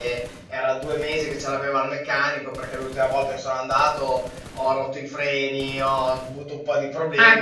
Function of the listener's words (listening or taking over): taking over